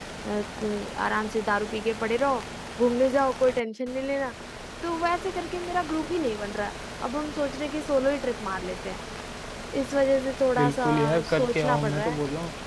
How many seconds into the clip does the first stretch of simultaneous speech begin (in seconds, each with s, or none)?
10.6 s